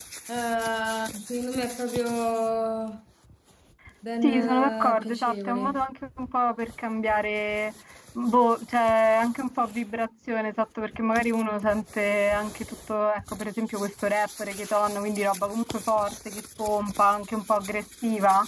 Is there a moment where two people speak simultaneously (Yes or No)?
Yes